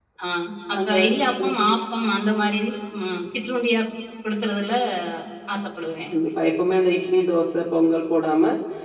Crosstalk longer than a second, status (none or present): none